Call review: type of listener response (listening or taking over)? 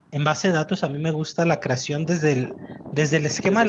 listening